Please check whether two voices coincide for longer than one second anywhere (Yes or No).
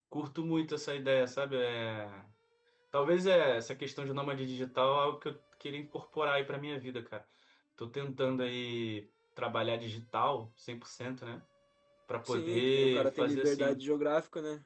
Yes